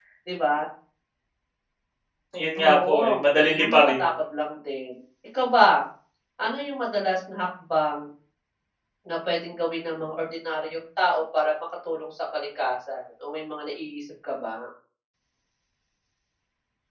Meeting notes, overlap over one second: present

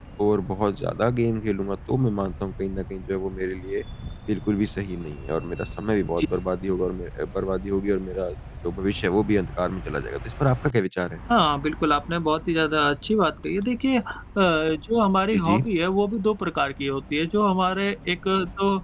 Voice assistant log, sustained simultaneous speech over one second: none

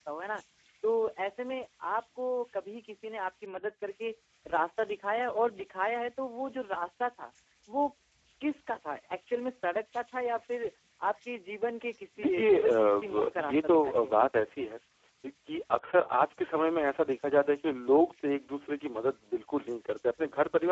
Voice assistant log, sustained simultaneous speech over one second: present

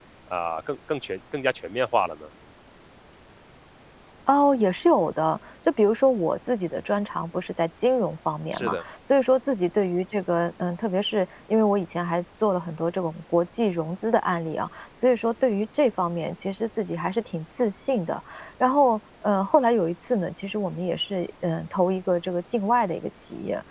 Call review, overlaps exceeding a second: none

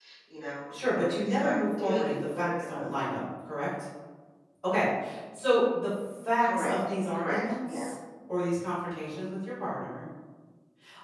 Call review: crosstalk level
present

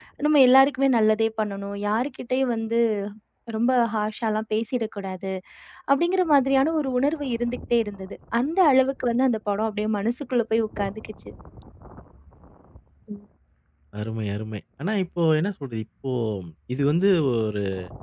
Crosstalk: none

